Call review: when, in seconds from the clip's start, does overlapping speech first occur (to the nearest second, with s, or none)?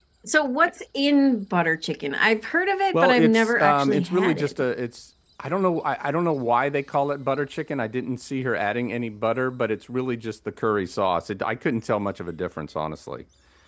3 s